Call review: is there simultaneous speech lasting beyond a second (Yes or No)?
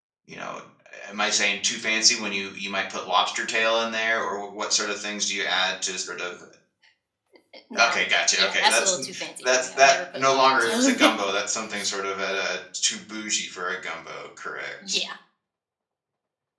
Yes